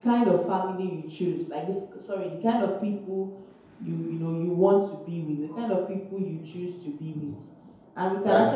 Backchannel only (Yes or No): Yes